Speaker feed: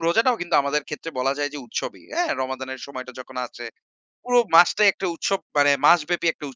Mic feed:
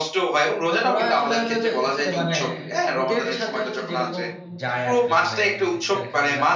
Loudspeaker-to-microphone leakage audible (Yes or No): Yes